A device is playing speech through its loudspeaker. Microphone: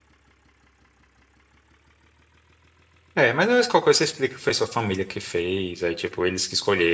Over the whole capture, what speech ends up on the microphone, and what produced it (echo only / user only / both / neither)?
user only